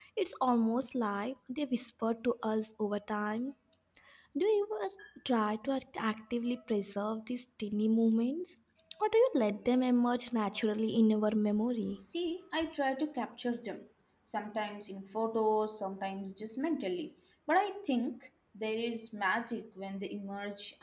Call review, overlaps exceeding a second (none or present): none